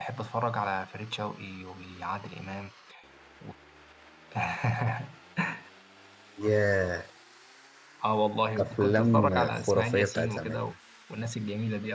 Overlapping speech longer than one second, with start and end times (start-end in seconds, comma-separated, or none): 8.6-10.6